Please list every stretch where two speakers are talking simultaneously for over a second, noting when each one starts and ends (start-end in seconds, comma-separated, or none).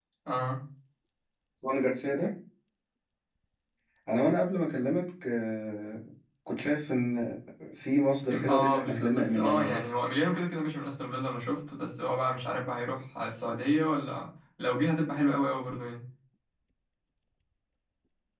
8.3-9.9